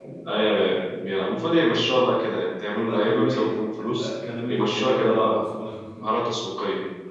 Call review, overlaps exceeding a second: present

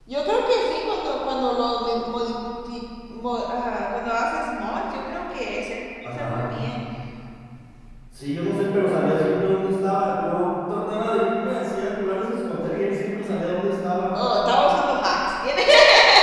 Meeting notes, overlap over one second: none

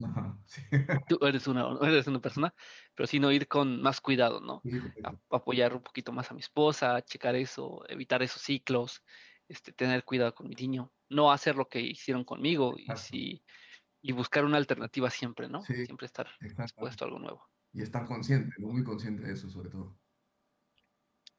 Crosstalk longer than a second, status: none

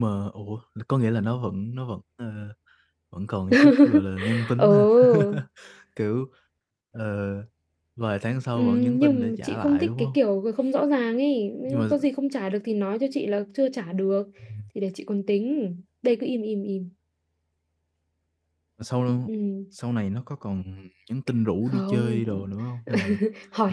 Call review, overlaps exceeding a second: present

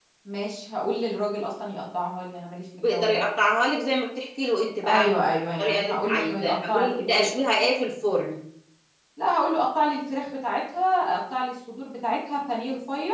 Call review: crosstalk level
present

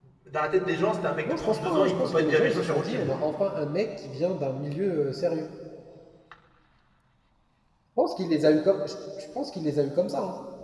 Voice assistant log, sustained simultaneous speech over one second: present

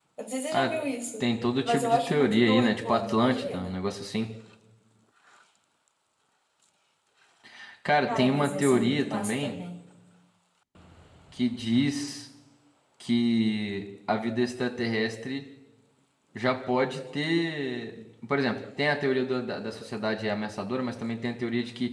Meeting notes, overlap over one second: present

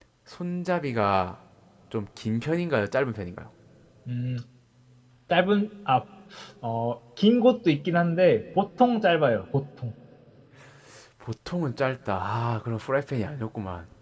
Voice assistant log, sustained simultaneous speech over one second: none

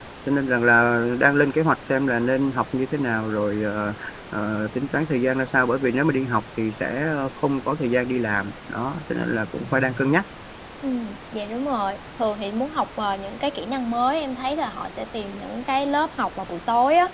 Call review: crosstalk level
none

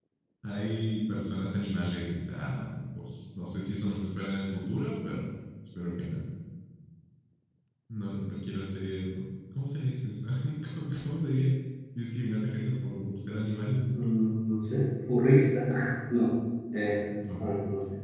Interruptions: none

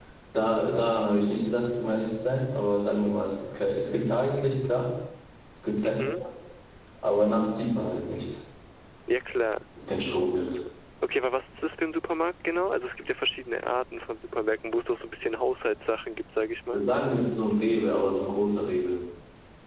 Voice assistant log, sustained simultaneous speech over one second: none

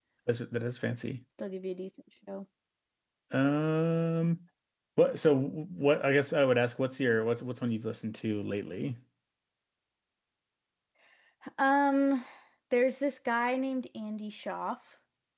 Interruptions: none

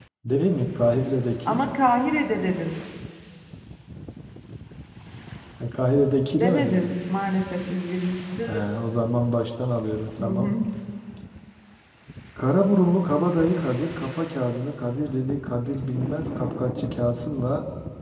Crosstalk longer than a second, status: none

